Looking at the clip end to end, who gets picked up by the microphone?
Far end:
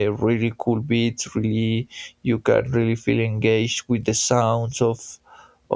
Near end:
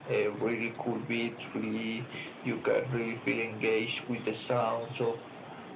echo only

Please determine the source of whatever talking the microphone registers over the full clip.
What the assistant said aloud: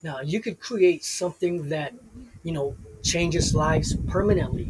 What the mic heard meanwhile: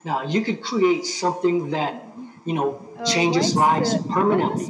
both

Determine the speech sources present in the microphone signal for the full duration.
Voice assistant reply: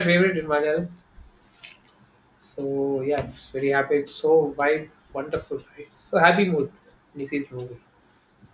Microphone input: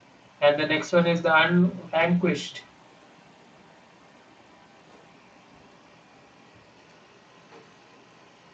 user only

